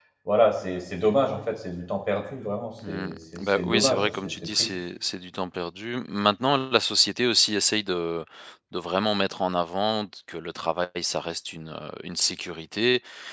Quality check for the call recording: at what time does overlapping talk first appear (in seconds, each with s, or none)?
2.8 s